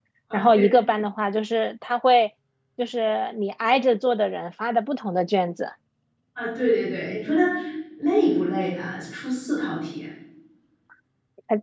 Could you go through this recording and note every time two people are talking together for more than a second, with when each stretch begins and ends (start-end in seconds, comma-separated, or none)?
none